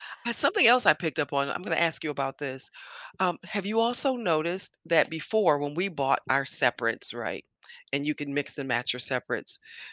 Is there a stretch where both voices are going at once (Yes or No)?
No